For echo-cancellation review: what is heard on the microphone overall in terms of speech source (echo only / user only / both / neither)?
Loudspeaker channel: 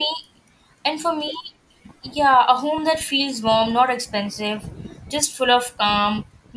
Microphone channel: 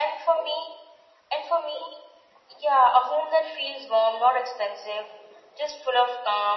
echo only